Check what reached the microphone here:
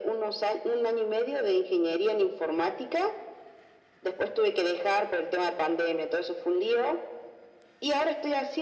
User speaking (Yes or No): No